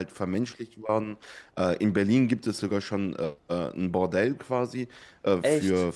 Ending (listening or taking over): listening